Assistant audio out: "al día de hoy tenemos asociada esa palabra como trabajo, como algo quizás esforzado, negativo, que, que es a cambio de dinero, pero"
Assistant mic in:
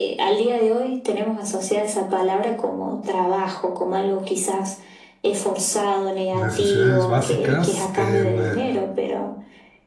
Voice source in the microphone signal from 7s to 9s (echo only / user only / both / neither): both